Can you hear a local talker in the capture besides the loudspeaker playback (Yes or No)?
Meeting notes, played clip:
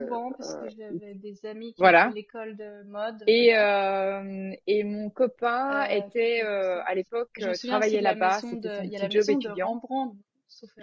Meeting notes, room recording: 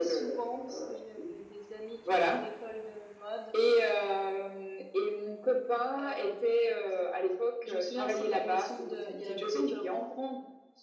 No